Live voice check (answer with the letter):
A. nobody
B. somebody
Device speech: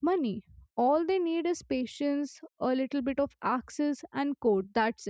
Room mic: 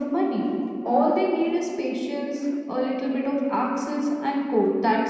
A